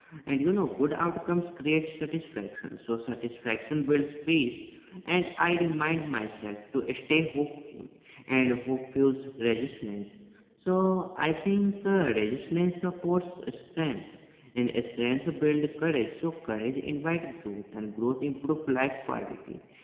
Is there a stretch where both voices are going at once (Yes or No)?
No